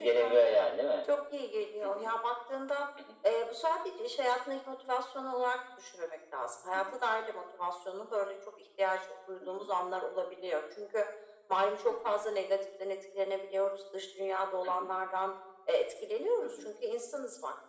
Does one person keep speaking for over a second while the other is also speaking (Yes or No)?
No